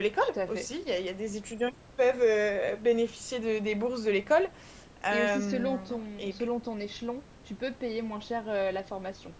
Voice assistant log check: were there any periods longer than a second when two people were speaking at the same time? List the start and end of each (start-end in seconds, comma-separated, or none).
5.1-6.5